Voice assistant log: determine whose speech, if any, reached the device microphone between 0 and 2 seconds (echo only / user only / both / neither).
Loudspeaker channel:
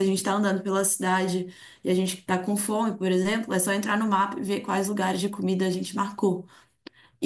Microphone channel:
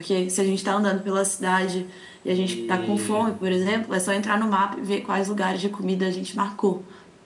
echo only